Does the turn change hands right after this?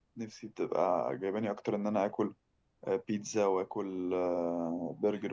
No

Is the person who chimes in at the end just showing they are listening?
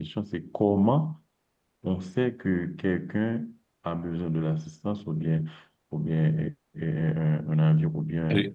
No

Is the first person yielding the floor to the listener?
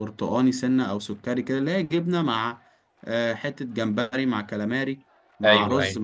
No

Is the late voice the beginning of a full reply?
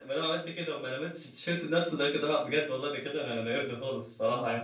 Yes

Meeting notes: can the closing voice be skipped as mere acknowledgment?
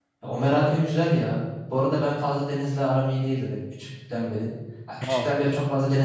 Yes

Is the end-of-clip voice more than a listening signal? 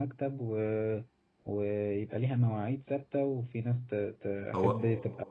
No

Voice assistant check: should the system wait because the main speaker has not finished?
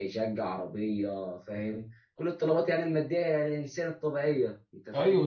No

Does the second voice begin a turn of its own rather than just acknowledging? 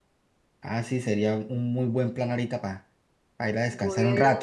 Yes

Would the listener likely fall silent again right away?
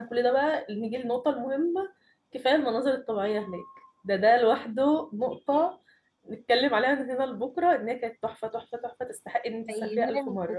No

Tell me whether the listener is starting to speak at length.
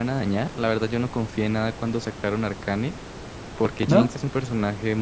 No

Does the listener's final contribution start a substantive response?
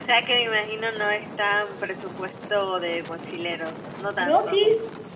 Yes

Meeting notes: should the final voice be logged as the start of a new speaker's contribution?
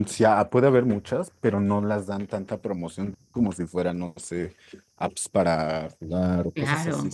No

